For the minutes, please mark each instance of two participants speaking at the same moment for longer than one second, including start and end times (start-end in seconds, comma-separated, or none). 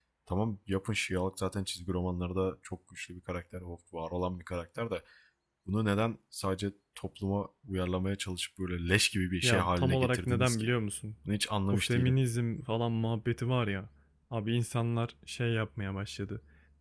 9.4-10.7